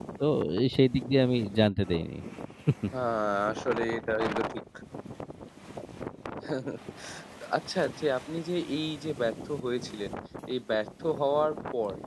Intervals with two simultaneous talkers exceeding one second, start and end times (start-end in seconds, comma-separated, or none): none